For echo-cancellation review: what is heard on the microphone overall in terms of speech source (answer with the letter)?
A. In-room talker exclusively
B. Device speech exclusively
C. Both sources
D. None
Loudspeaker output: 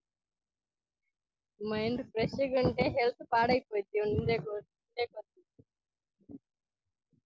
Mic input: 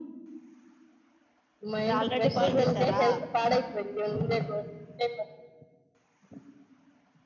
C